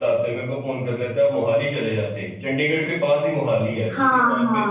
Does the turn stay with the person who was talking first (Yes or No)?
Yes